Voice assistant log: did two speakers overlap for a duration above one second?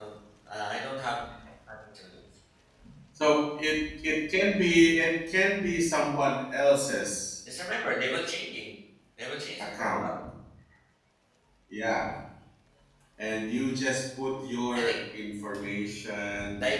No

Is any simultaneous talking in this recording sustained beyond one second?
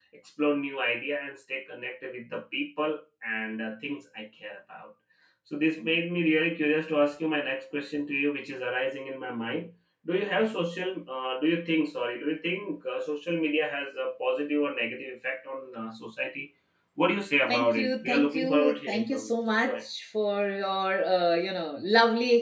Yes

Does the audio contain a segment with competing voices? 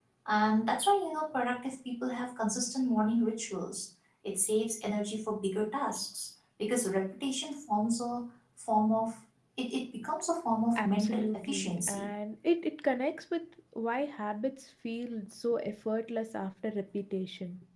Yes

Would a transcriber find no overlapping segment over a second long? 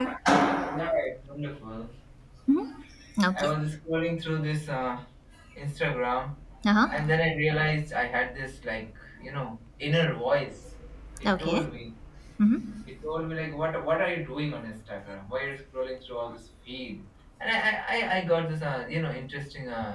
Yes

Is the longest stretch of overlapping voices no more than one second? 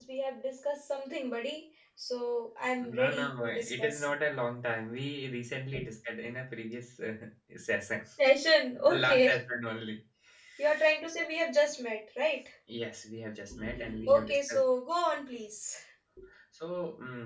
No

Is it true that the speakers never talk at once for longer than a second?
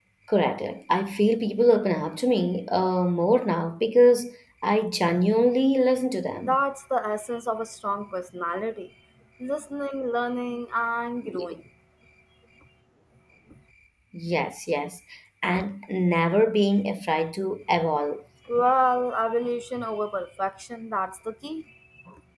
Yes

